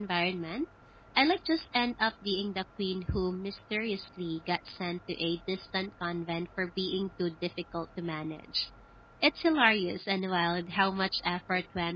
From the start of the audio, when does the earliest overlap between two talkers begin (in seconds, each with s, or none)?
none